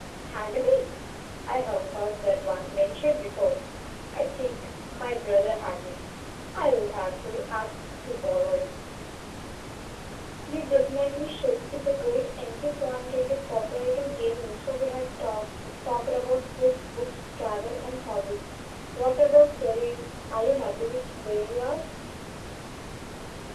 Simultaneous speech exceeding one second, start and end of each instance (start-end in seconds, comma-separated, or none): none